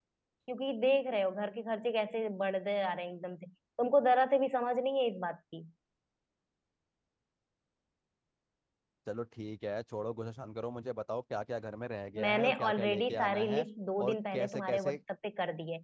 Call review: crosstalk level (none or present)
present